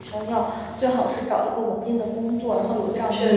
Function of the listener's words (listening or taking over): listening